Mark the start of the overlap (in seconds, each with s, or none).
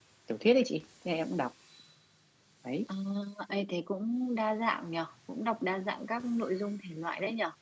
none